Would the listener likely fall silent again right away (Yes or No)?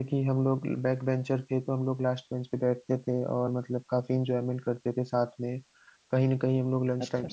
Yes